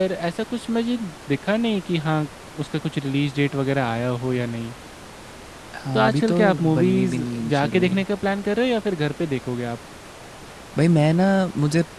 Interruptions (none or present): present